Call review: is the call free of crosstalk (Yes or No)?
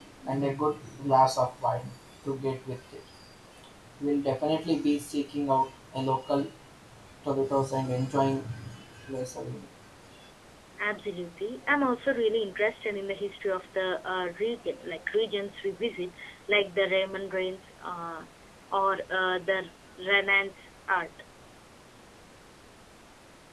Yes